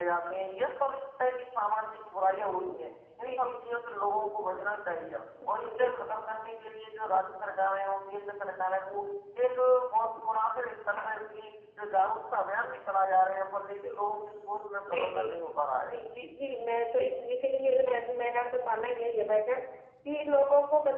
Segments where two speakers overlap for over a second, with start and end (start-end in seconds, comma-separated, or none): none